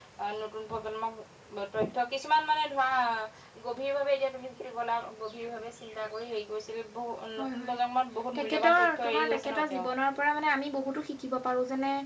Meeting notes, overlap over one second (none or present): present